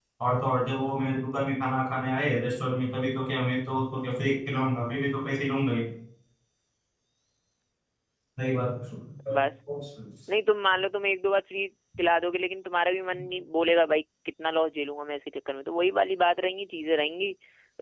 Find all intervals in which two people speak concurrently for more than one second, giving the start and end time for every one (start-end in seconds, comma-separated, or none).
none